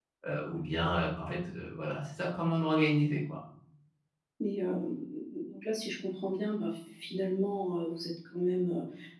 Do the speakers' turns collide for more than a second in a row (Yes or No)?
No